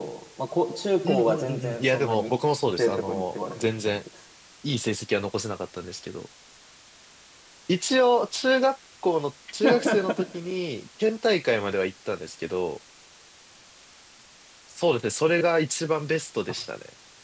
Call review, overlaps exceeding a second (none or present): present